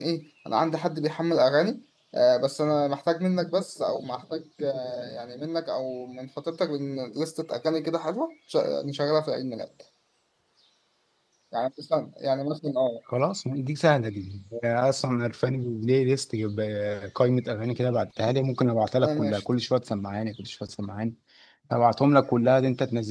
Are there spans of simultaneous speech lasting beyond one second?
No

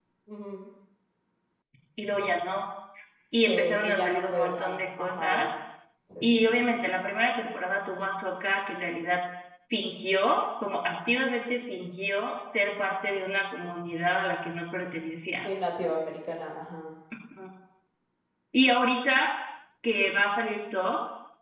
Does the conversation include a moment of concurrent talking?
Yes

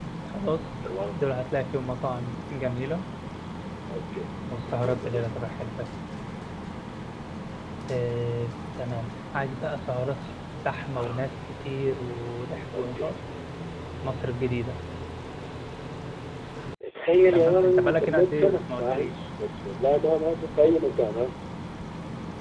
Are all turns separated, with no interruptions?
No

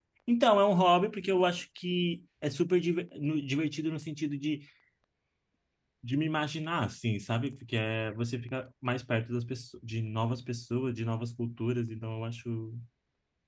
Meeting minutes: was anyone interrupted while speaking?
No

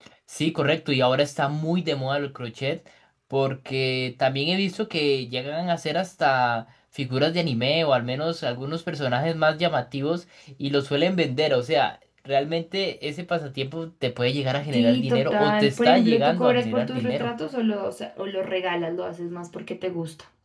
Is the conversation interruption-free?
No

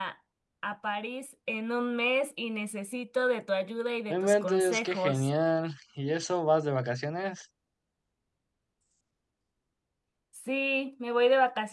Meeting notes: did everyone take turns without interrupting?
No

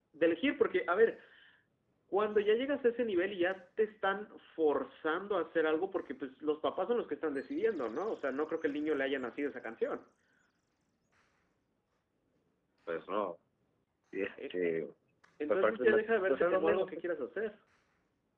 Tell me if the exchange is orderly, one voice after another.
No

